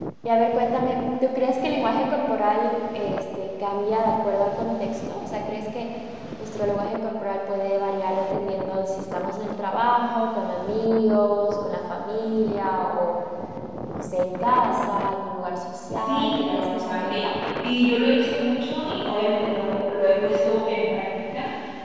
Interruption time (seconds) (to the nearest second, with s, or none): 16 s